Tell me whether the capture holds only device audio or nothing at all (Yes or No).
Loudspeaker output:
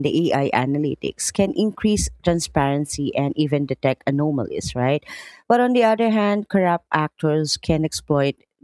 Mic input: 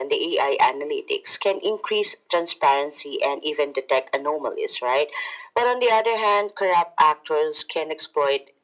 Yes